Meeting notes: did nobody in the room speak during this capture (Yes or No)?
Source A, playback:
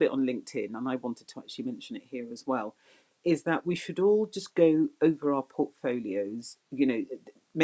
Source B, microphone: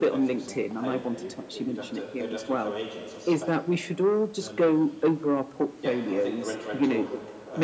No